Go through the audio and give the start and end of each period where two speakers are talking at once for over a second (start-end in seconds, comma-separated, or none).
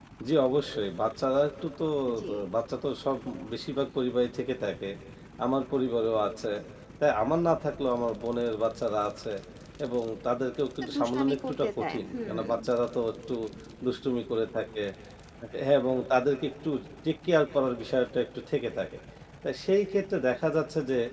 10.9-12.4